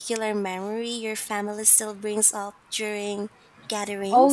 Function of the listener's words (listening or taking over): taking over